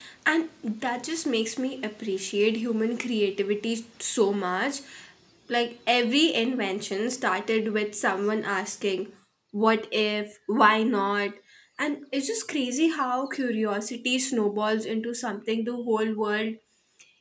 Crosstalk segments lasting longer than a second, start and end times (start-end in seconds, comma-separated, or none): none